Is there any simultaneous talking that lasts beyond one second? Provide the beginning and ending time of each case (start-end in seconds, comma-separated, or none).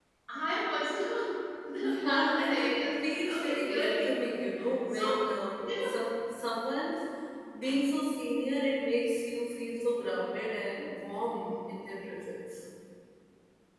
2.0-3.9